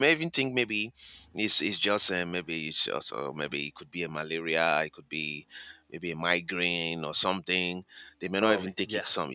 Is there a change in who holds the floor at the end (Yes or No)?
No